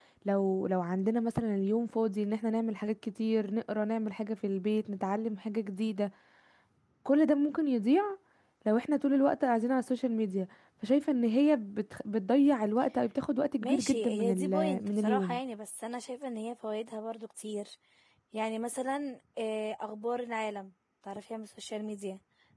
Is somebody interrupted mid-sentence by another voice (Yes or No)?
Yes